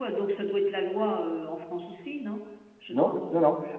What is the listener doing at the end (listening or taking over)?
taking over